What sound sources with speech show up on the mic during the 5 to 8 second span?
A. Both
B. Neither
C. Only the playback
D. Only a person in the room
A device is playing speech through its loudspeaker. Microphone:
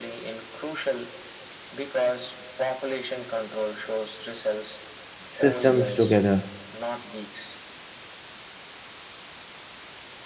A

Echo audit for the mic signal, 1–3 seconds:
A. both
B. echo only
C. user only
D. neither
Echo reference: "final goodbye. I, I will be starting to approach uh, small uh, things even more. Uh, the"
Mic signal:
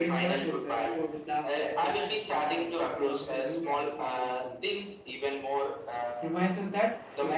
A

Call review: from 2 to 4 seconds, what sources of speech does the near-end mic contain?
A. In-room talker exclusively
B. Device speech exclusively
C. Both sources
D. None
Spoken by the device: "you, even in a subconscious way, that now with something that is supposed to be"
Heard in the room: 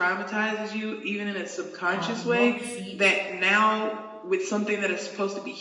C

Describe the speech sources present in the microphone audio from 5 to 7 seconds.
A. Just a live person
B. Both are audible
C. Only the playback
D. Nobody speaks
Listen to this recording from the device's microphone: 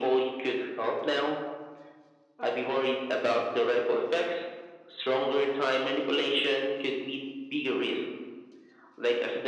C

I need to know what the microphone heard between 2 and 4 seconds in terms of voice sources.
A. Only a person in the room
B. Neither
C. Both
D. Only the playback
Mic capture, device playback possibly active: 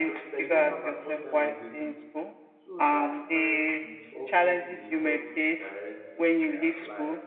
C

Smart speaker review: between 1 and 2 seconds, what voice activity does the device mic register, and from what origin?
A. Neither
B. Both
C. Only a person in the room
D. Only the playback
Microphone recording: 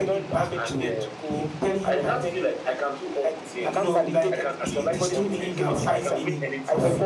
B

